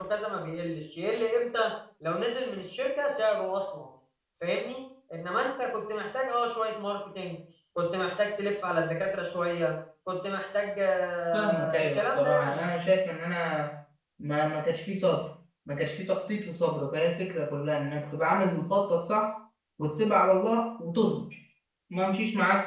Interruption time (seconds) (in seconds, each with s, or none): 11.3 s